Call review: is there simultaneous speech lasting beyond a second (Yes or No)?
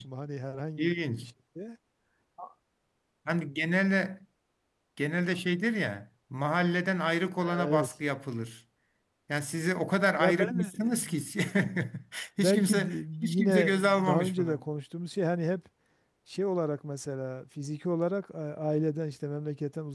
Yes